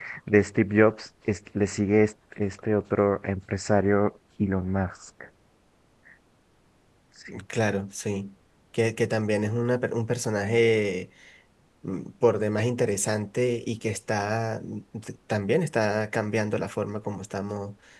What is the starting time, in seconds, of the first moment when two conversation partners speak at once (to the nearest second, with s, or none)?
none